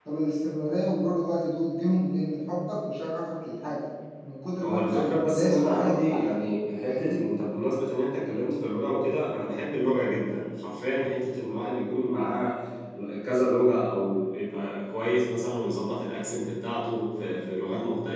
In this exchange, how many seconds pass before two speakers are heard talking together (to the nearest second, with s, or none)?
5 s